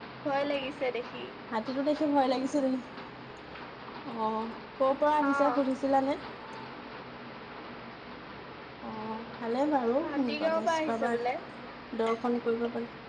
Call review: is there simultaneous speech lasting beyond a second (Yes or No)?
Yes